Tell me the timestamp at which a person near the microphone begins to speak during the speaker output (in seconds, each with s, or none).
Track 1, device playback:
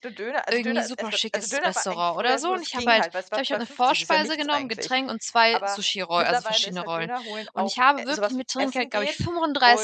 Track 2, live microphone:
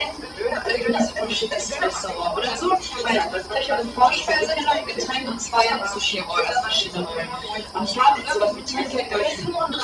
none